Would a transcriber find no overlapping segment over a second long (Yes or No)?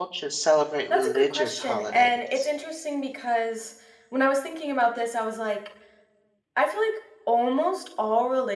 No